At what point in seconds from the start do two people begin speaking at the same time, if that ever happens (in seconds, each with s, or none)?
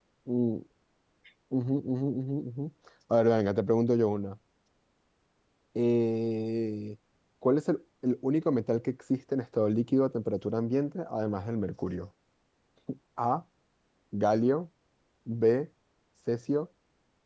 none